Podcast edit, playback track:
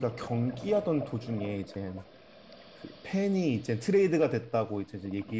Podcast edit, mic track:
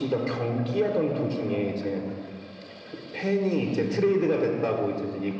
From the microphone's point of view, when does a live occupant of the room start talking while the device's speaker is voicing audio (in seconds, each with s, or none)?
none